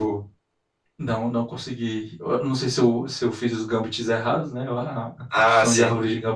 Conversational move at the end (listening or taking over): listening